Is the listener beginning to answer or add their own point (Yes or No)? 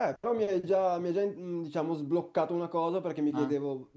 No